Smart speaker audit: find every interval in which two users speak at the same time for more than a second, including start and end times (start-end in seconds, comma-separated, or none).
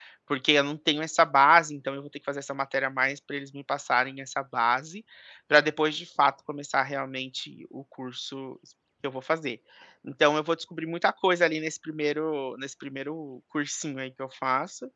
none